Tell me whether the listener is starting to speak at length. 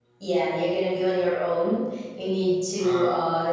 No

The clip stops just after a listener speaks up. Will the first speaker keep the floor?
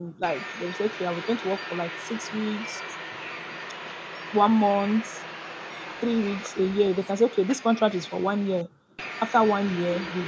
Yes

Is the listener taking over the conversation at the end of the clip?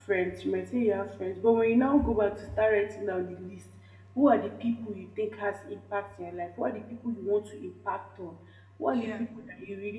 No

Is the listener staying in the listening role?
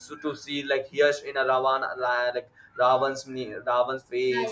Yes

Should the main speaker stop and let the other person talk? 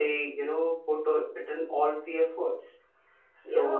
No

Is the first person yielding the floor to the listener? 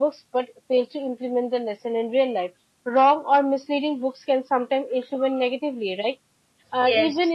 No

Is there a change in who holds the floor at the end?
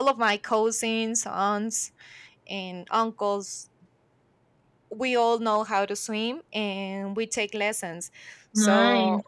No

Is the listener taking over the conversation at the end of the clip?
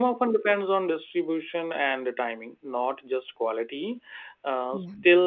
No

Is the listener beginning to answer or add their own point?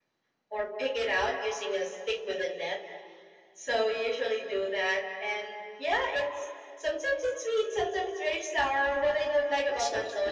No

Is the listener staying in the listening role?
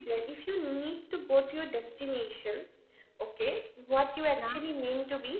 Yes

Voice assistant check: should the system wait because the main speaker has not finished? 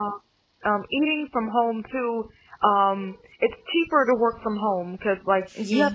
Yes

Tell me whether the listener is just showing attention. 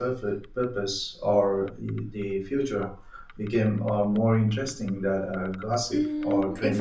No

